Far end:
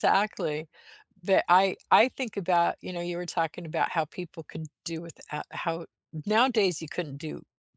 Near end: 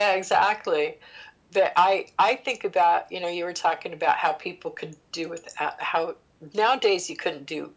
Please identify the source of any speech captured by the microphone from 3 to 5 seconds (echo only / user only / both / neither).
echo only